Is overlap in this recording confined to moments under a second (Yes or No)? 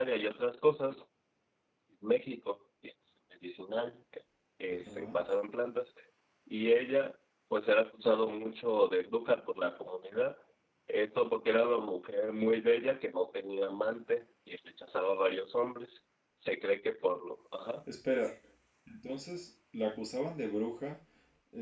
Yes